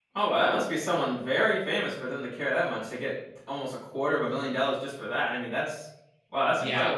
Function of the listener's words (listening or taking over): taking over